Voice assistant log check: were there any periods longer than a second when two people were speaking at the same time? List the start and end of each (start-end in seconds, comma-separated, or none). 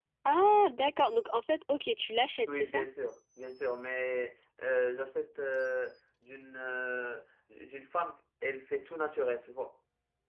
none